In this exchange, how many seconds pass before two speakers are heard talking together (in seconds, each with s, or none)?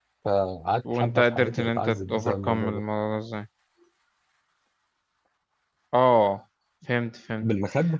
0.9 s